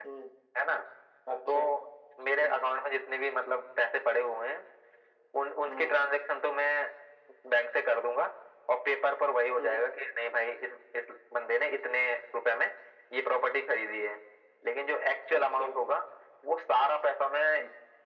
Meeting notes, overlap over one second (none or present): none